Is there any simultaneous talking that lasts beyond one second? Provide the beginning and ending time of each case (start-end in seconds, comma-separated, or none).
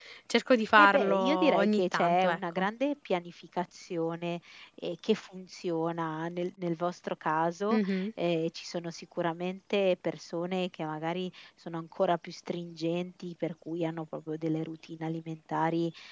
0.8-2.7